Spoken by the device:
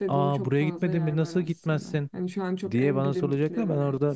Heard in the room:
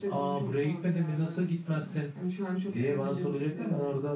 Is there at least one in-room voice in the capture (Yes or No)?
No